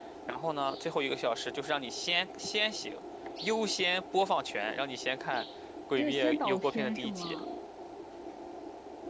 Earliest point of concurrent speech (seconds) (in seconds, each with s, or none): 6.0 s